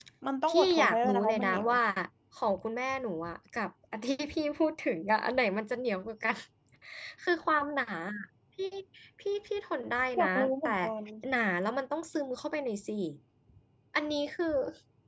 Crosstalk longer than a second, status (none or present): present